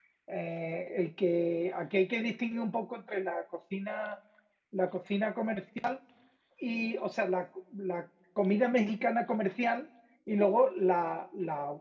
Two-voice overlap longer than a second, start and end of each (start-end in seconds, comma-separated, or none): none